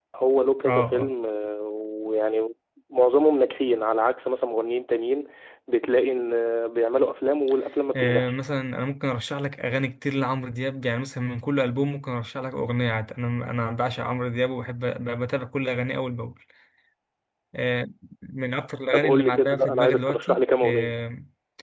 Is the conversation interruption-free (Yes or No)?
No